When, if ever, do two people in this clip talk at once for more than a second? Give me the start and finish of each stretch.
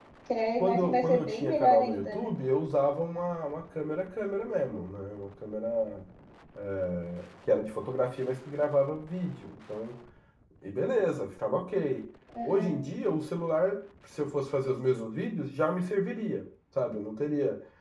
0.6-2.3

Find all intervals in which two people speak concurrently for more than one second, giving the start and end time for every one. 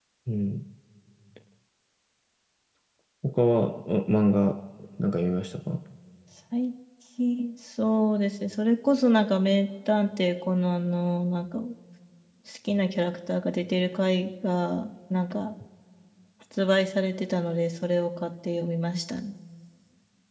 none

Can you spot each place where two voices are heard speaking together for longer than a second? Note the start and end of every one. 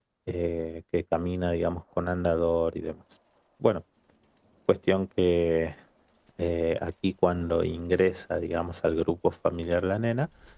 none

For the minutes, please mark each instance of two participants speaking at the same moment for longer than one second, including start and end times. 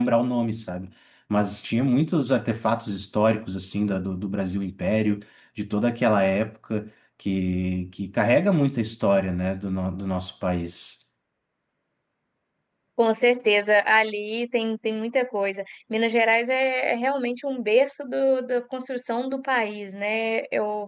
none

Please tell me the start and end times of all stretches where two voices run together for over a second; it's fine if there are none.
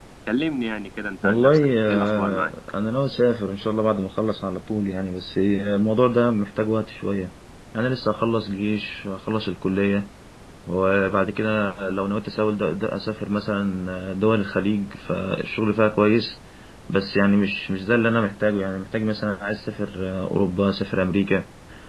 1.2-2.5

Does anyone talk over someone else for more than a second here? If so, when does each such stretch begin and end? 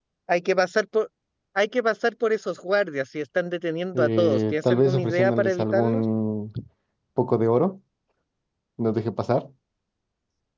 4.0-6.0

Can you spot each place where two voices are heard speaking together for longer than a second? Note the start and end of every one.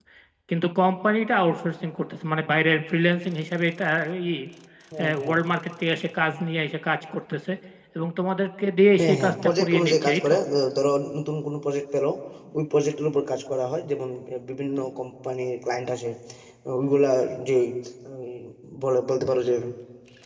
9.0-10.3

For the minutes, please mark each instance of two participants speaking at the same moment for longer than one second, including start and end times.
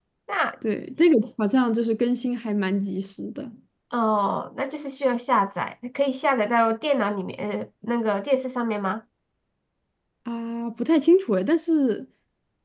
none

